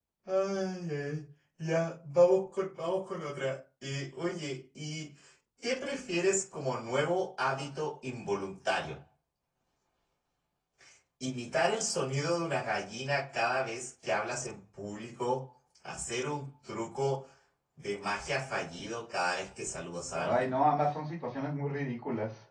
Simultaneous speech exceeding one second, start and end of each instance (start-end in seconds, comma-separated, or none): none